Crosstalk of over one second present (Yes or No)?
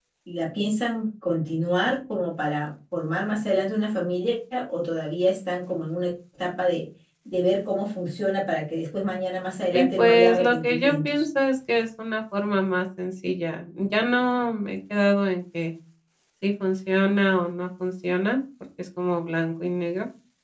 Yes